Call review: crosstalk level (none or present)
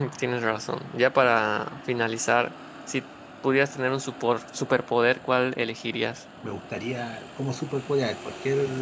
none